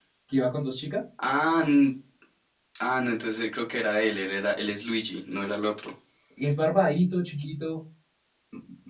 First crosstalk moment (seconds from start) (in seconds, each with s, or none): none